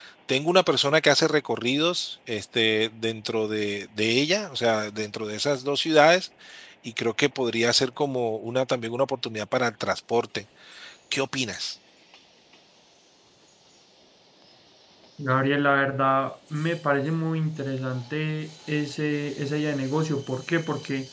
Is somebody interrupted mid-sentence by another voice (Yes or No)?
No